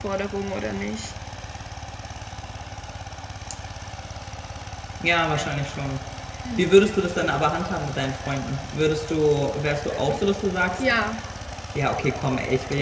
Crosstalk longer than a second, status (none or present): none